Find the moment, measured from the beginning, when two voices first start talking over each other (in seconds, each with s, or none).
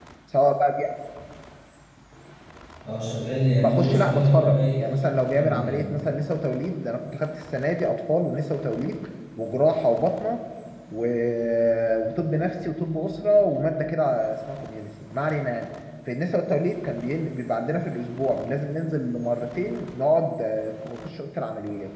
3.6 s